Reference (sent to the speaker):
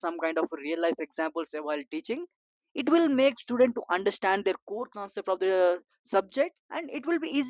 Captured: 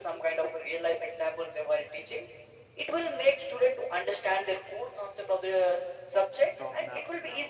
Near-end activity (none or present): present